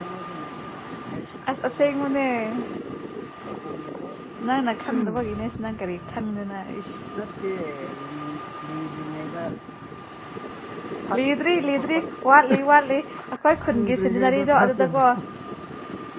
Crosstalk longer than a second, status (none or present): present